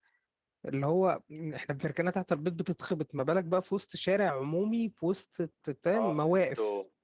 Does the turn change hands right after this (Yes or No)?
Yes